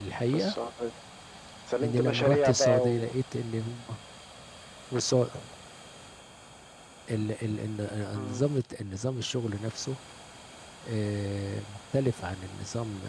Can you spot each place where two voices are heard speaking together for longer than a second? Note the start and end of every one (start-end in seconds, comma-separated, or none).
1.8-3.1